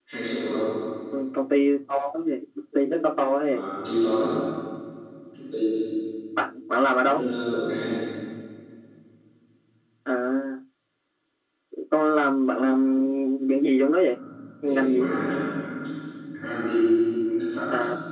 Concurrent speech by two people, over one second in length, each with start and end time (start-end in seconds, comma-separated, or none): none